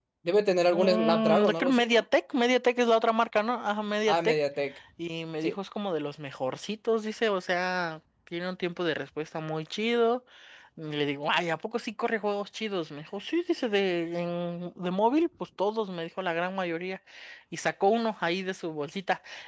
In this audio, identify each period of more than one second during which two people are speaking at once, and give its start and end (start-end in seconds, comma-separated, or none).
0.7-2.0